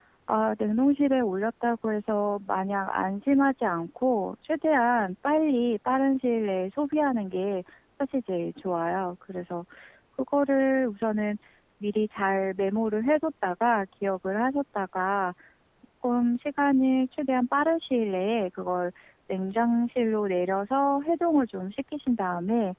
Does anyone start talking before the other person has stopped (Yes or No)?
No